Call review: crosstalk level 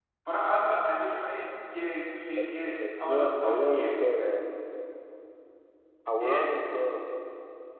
present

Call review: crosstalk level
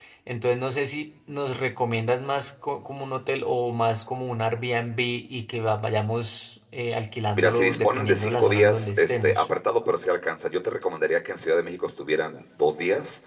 present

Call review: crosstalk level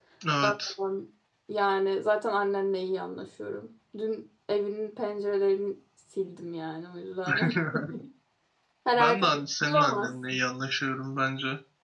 present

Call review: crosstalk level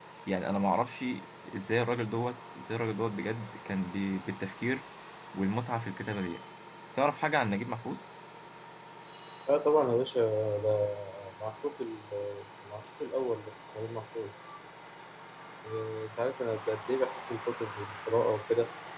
none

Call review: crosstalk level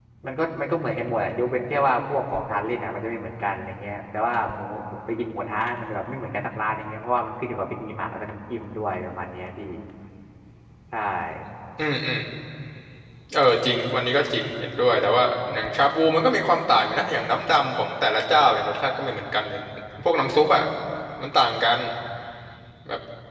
none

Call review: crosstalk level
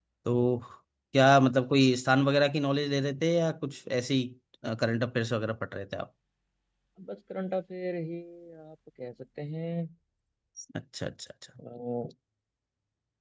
none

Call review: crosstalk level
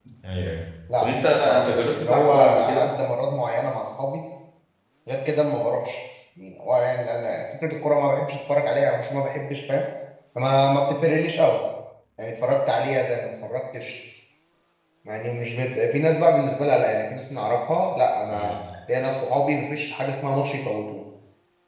present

